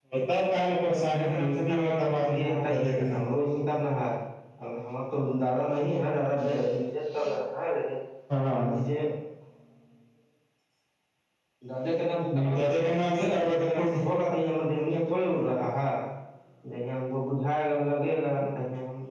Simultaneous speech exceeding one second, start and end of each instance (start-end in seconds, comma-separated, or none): 0.9-3.2, 12.4-14.0